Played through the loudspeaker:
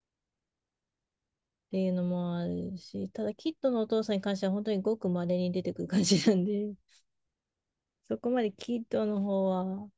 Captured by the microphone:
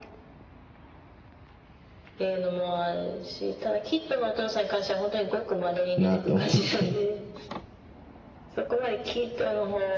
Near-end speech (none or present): present